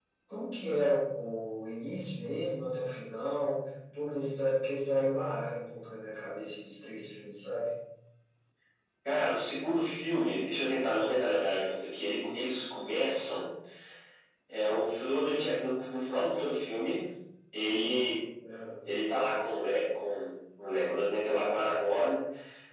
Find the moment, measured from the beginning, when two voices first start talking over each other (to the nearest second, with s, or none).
none